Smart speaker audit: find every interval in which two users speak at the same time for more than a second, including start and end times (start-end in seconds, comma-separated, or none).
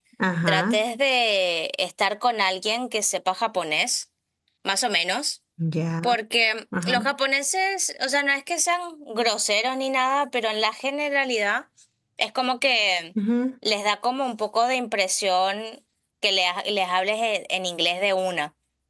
none